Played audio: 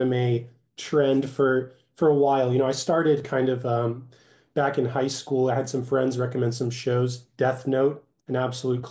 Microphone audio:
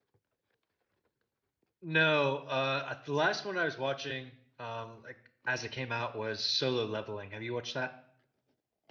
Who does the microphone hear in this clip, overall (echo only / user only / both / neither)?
user only